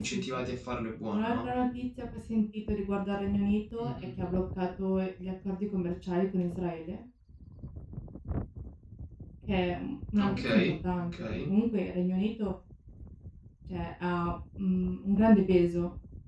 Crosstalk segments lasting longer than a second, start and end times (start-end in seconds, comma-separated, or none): 10.2-11.5